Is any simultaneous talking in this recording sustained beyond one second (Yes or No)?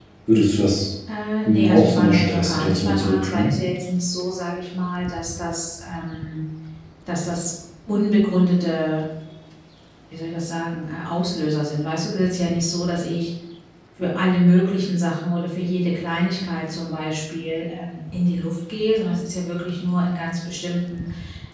Yes